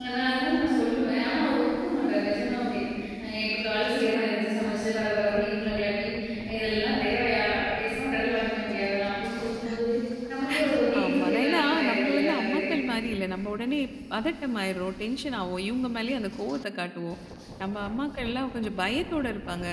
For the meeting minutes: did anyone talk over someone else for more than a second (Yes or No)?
Yes